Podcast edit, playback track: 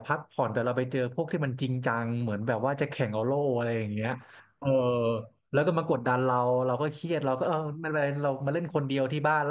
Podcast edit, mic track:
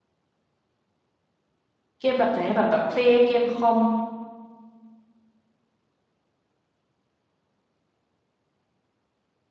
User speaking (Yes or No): Yes